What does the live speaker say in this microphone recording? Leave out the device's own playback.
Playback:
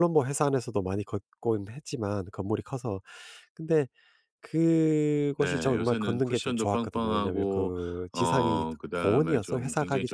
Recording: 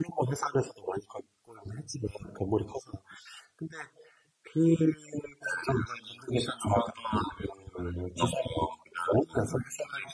none

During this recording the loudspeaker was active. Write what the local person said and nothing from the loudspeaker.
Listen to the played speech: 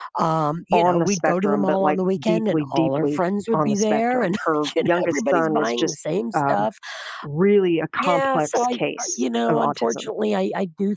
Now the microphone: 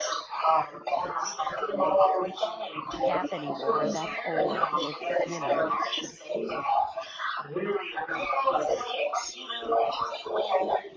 "Gap anymore, that's old." It's, you know,

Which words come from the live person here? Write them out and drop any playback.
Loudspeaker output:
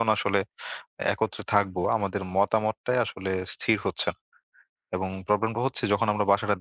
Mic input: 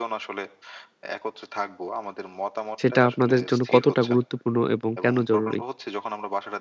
সেটা আপনাদের জন্য কতটা গুরুত্বপূর্ণ এবং কেন জরুরি?

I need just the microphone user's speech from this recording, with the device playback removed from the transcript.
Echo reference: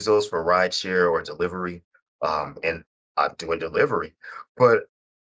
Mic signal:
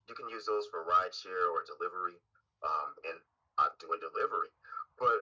none

